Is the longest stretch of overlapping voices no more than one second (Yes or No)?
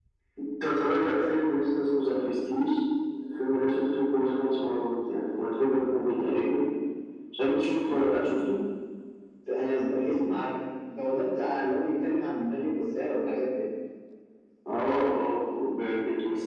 Yes